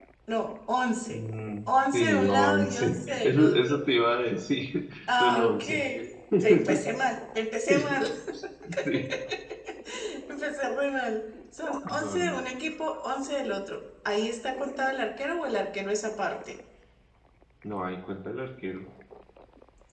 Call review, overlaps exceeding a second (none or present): present